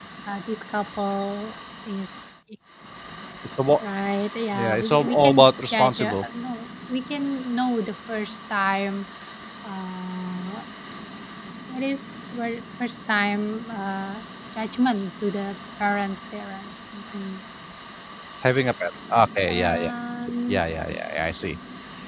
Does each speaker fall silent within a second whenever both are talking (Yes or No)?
No